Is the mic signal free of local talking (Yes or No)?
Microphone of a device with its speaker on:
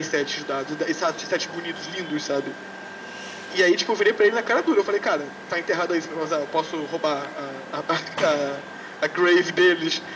Yes